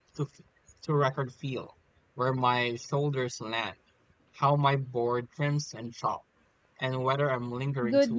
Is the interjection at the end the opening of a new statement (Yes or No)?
Yes